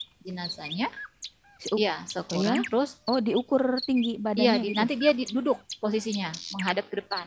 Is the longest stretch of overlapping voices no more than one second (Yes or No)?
Yes